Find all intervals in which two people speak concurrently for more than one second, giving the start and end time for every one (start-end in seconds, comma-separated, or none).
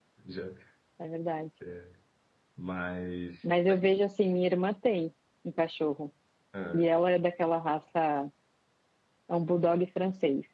none